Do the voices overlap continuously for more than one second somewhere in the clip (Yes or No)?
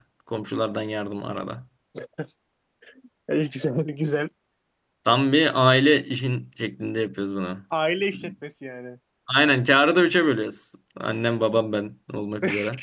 No